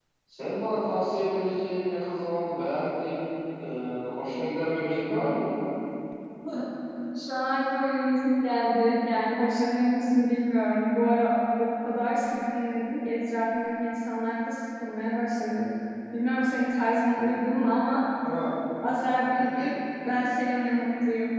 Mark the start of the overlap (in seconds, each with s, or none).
none